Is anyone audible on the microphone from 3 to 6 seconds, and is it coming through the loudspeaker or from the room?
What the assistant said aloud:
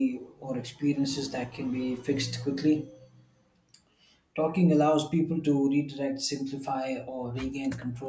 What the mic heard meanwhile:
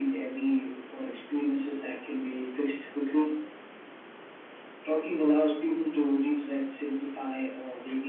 echo only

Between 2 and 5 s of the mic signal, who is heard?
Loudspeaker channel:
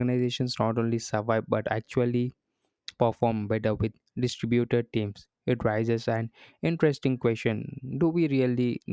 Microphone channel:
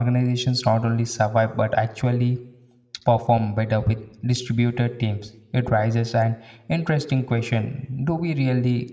echo only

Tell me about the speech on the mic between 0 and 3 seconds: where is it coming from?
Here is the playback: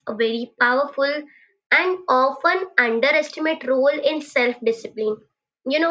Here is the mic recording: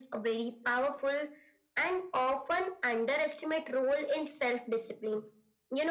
echo only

